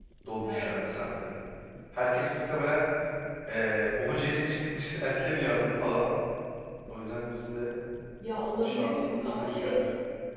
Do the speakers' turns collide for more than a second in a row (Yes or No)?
Yes